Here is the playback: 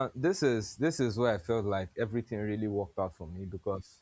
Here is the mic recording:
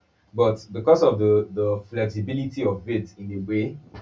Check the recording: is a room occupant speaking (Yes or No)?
Yes